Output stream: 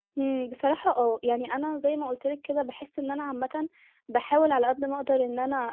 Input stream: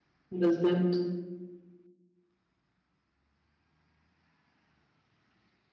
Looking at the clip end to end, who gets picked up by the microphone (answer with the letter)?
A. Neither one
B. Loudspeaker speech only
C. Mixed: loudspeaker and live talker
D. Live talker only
D